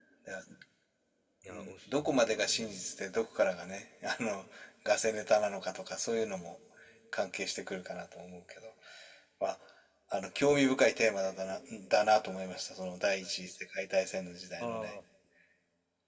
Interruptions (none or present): present